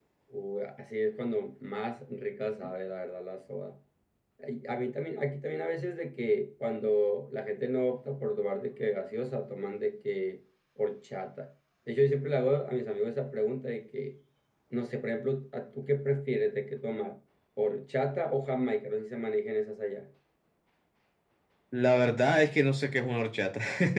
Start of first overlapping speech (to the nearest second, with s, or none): none